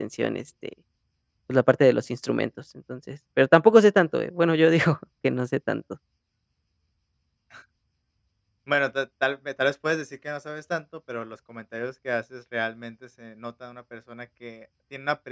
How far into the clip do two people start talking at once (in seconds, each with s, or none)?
none